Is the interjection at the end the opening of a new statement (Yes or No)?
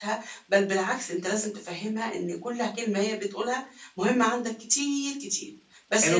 Yes